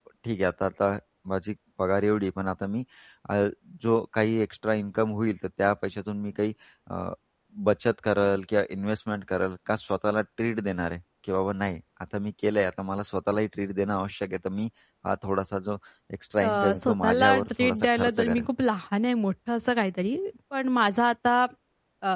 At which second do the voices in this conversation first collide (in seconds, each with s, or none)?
16.4 s